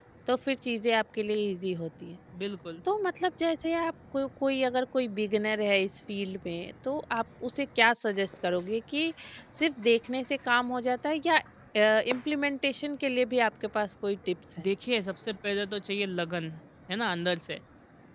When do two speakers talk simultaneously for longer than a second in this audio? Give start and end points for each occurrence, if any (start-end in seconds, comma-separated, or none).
none